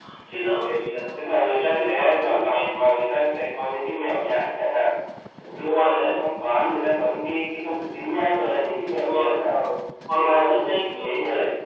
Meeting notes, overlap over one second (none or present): present